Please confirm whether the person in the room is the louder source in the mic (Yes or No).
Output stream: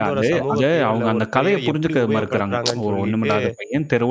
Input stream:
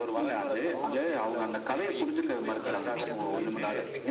No